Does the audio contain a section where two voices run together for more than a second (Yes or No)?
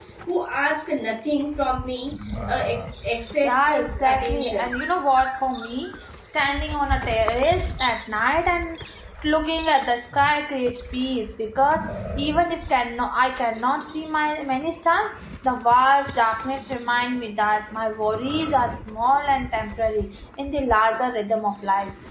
Yes